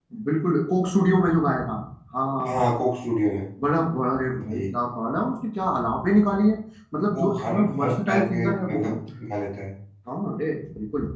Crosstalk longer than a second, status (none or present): present